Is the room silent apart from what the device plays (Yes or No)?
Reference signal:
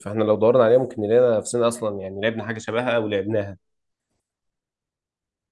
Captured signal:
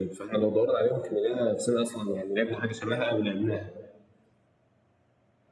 Yes